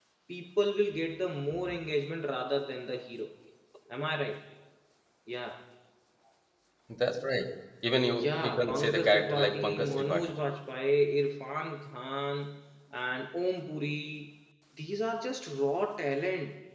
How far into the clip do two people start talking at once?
8.1 s

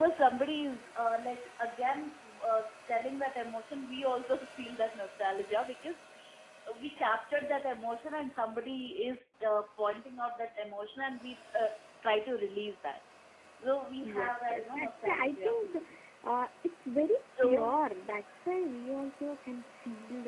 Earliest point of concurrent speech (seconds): 14.0 s

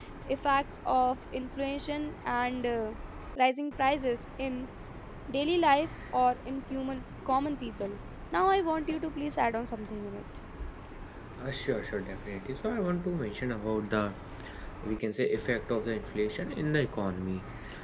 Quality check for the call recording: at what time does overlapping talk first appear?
none

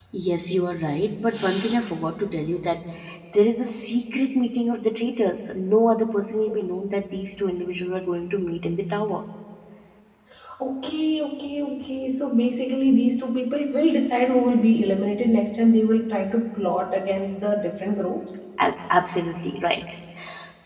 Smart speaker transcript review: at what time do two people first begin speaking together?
none

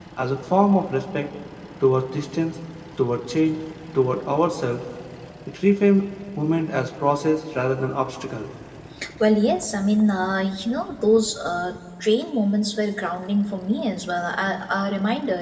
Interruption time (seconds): none

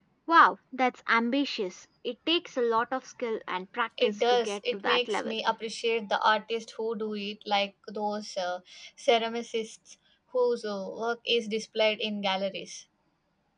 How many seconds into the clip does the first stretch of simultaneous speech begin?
4.0 s

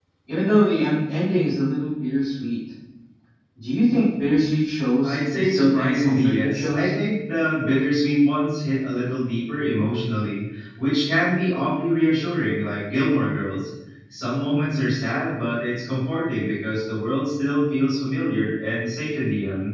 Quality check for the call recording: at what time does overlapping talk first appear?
5.0 s

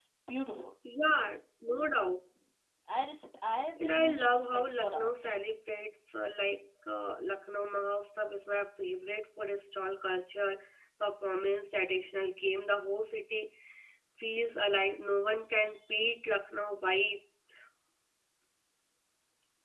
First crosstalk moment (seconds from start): 3.8 s

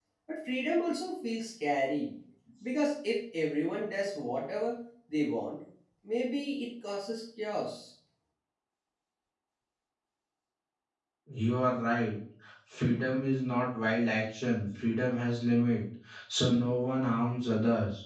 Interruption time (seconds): none

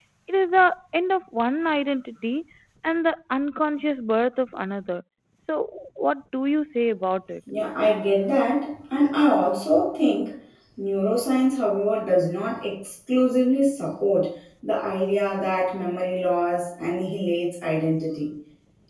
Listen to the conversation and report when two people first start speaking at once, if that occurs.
none

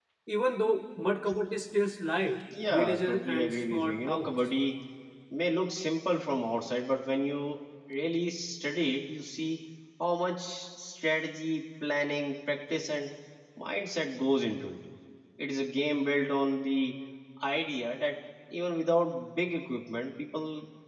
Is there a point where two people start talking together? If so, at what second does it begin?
2.5 s

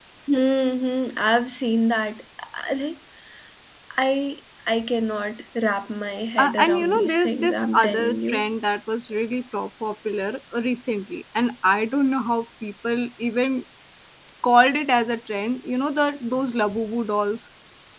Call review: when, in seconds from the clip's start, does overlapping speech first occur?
6.4 s

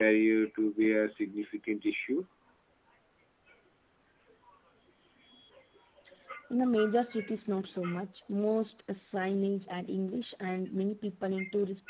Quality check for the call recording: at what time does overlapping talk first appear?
none

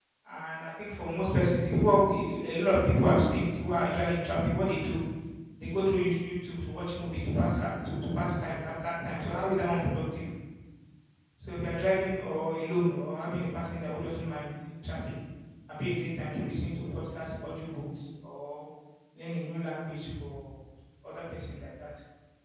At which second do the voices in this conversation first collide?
none

